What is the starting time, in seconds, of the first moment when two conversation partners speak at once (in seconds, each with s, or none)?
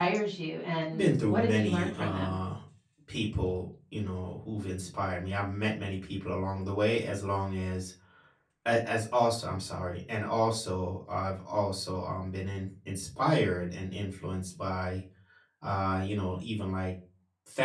0.9 s